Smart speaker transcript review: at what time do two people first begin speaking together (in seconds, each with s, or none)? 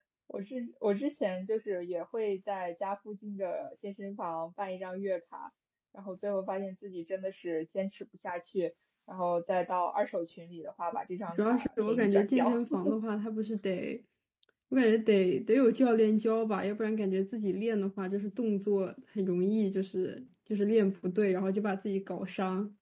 11.4 s